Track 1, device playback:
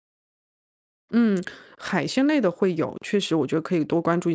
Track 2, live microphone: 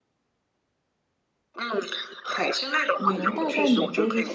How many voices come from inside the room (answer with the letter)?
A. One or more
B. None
A